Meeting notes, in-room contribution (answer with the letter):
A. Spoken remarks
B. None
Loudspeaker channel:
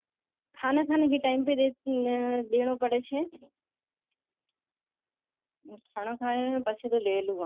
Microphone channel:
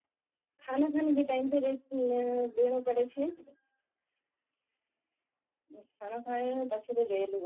B